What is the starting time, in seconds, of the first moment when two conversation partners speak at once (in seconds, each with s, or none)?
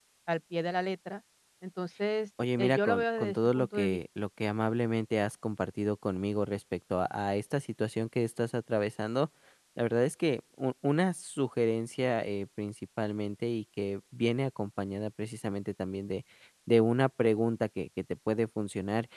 2.4 s